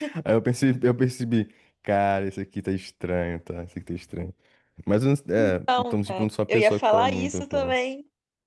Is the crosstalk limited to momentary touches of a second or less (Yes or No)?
No